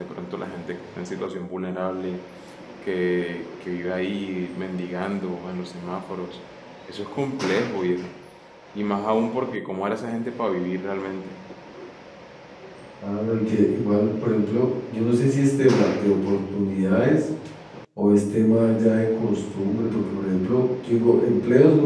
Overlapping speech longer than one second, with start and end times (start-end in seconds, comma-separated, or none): none